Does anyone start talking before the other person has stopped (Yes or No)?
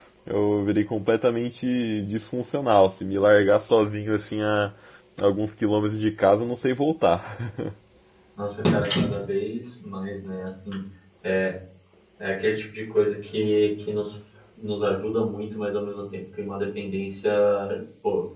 No